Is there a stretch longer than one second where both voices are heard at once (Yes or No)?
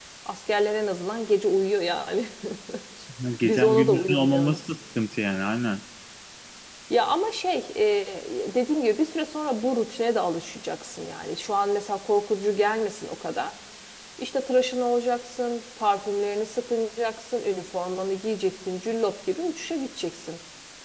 Yes